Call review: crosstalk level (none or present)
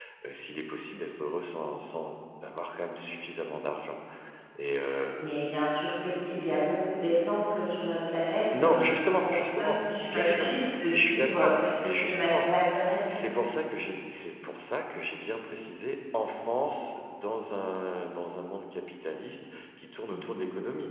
present